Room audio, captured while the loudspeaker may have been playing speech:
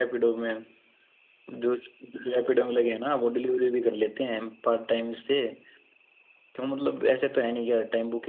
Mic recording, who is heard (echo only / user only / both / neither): echo only